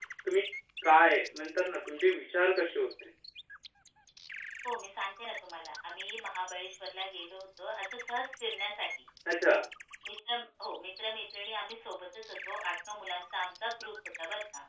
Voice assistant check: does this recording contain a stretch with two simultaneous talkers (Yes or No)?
No